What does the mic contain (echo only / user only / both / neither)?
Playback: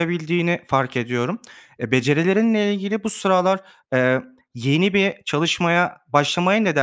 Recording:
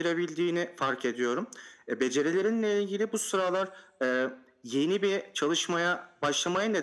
echo only